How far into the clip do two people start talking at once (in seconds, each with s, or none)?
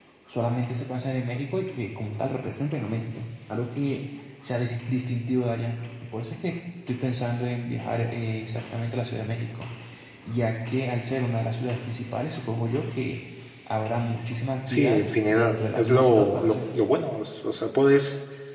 14.7 s